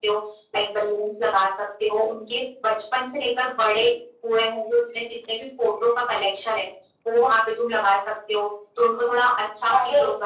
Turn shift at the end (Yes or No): Yes